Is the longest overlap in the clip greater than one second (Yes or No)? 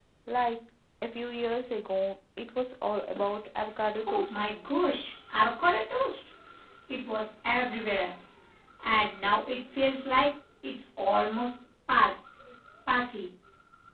No